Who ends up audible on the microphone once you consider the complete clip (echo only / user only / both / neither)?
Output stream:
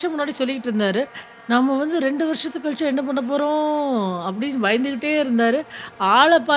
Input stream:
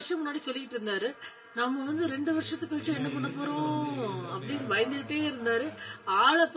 both